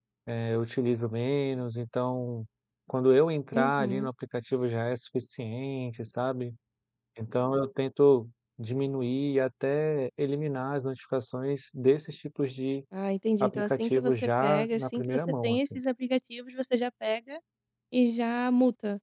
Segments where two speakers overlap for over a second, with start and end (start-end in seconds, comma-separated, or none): 13.4-15.8